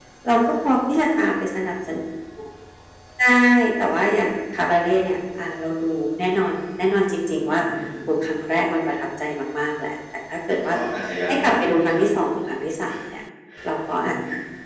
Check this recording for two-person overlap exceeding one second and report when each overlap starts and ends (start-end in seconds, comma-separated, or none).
none